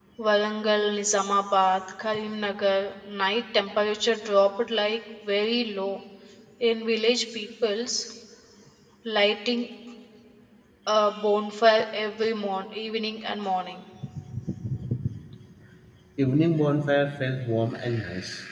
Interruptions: none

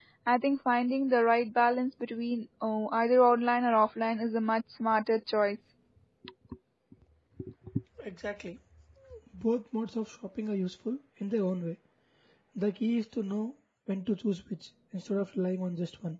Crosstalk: none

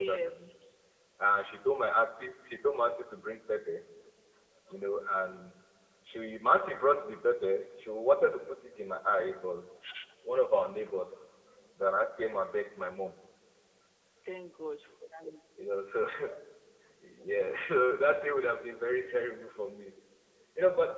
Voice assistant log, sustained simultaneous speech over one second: none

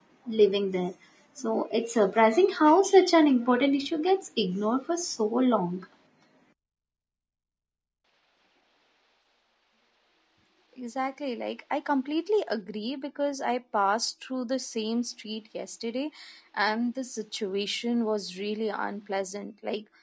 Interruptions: none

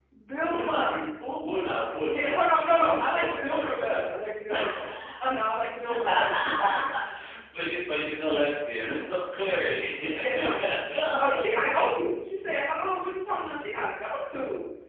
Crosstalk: present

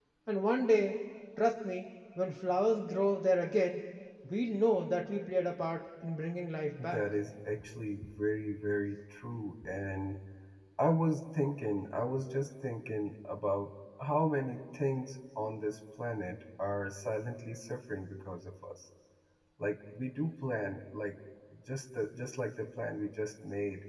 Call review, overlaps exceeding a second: none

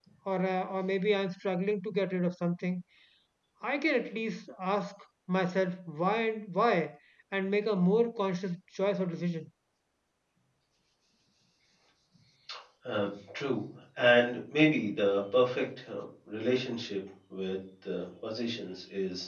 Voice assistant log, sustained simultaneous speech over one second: none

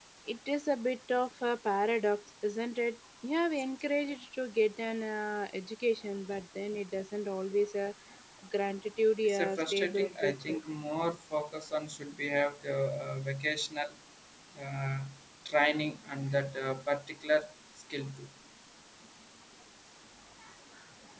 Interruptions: present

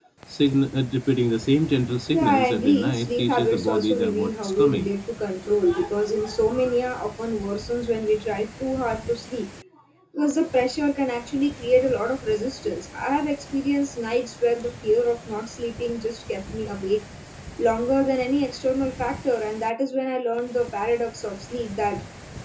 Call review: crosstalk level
present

